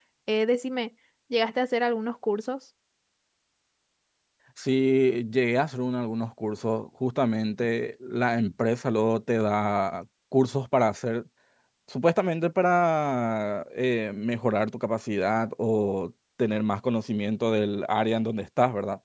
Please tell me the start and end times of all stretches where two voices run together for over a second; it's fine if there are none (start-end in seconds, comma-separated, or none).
none